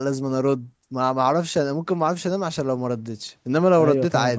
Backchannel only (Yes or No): No